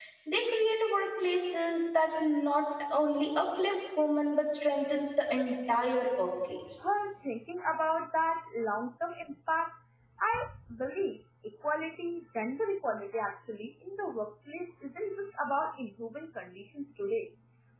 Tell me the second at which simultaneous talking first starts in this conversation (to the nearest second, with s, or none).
none